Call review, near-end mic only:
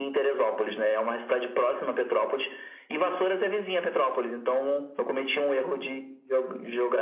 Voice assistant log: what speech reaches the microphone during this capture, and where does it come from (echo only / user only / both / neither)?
echo only